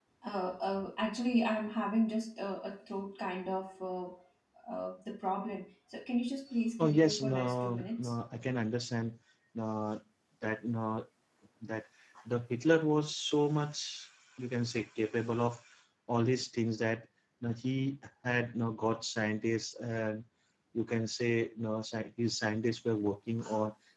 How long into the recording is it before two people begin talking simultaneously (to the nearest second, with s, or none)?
7 s